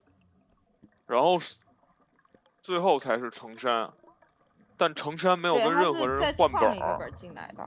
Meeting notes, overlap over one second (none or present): present